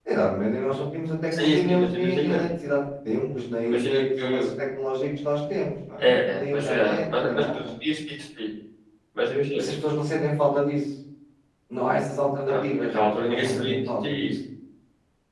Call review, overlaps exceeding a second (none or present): present